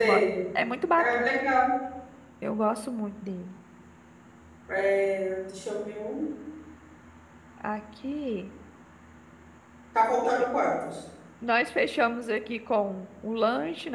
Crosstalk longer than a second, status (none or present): none